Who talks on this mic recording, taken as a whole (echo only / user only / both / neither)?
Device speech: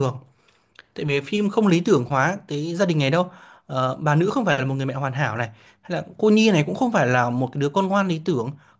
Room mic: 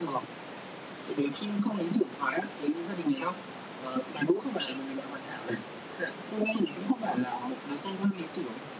echo only